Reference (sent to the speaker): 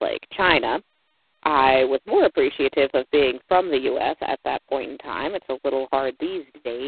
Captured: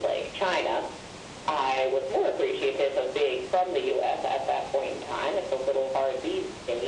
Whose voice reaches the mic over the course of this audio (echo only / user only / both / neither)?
echo only